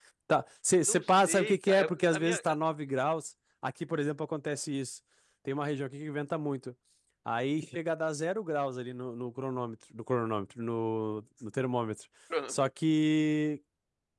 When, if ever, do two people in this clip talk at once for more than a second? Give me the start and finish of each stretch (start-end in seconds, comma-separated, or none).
0.9-2.5